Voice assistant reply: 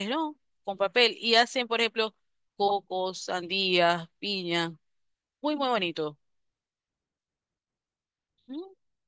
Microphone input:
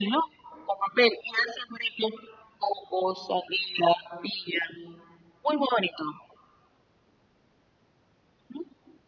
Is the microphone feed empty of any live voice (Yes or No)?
Yes